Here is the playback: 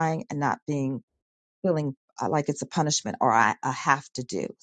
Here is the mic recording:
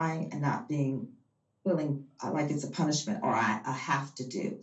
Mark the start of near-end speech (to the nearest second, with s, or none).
none